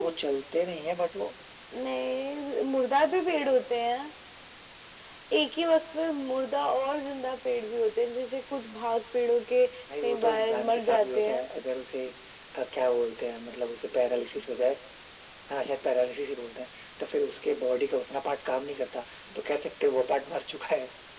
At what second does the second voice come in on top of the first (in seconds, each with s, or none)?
9.9 s